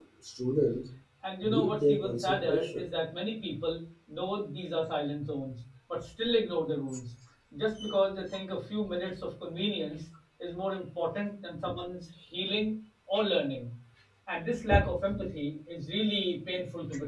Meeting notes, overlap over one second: present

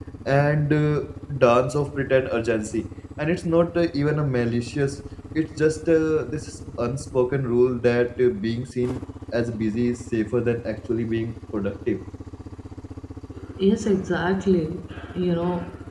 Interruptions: none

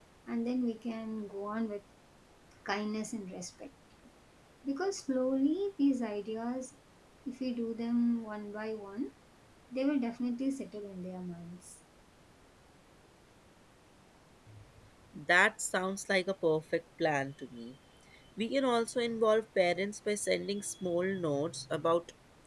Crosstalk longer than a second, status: none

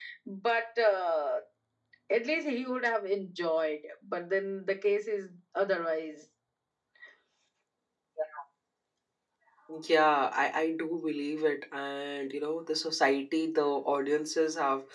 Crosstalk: none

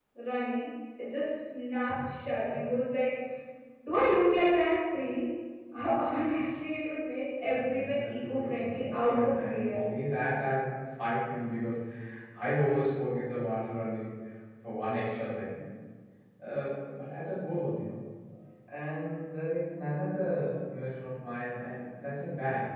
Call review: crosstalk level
present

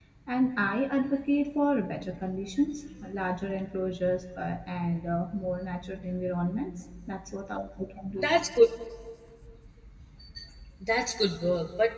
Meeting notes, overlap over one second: none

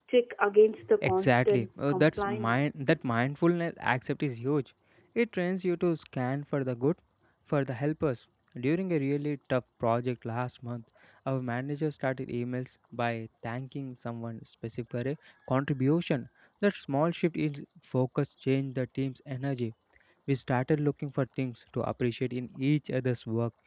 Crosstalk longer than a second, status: present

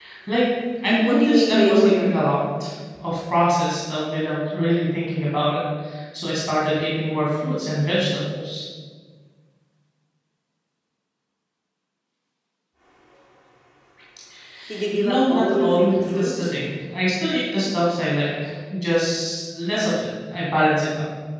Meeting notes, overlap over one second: present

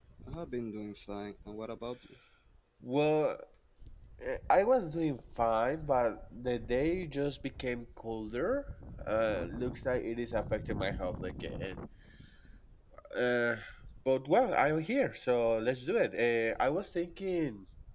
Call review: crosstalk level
none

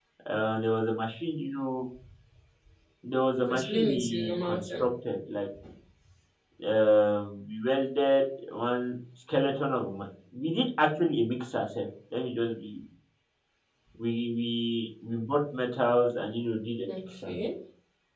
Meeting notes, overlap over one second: present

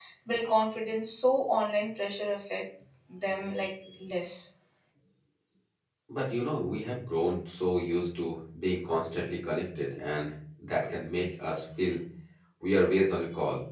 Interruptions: none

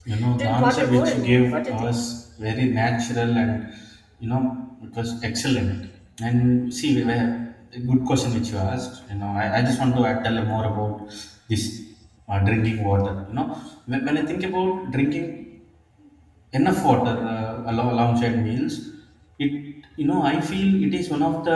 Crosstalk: present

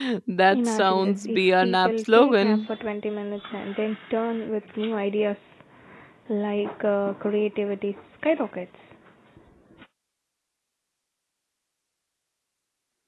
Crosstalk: present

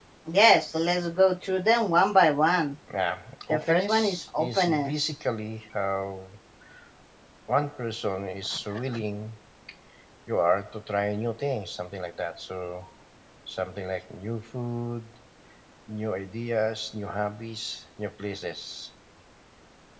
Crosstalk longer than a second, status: present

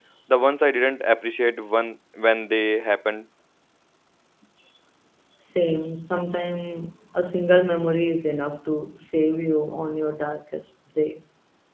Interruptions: none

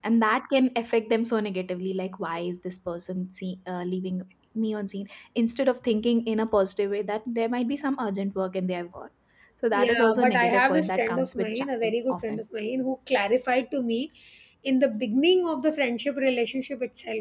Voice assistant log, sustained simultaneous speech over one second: present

